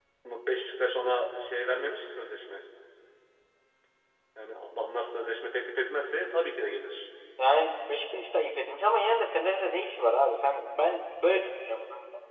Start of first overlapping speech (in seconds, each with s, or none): none